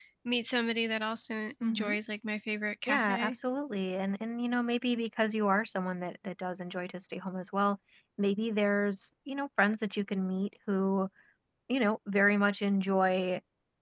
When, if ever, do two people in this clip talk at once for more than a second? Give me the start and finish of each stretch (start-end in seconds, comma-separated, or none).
none